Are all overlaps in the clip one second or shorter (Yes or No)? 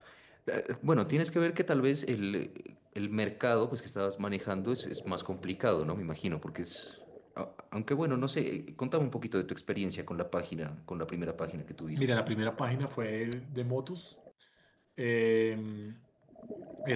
Yes